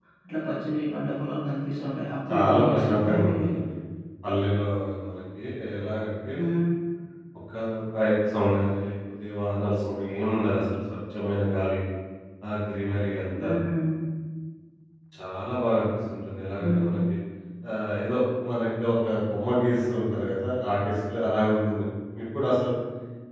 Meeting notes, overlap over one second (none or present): present